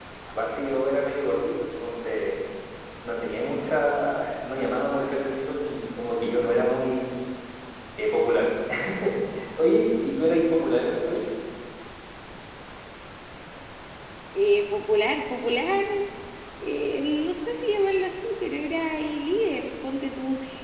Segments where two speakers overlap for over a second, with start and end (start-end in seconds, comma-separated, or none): none